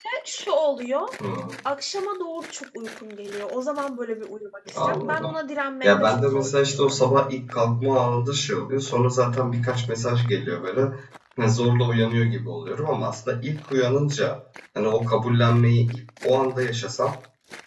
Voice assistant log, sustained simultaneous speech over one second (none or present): present